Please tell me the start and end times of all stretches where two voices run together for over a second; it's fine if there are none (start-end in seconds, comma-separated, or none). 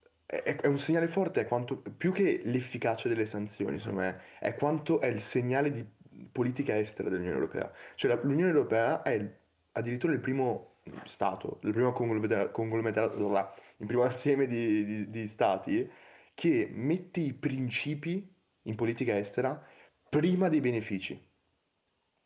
none